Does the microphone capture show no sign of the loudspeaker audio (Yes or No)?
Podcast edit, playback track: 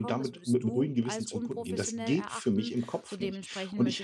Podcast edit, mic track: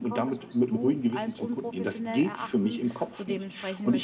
No